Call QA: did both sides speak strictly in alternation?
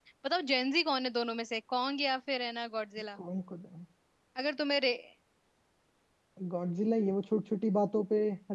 Yes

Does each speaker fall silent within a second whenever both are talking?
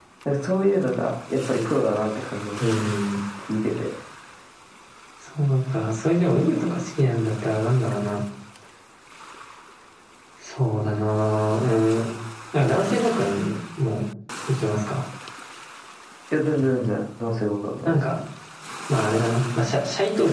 Yes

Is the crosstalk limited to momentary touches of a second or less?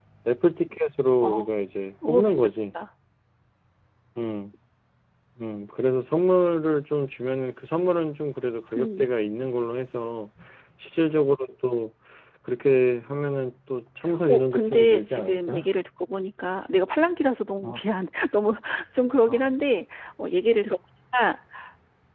No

